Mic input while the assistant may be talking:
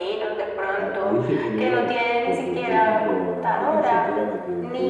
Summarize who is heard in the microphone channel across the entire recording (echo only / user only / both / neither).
both